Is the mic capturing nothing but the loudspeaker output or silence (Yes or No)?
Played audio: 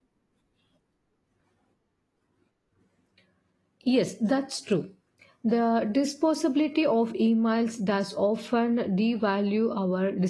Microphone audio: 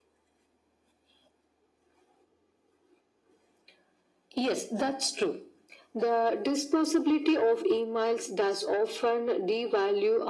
Yes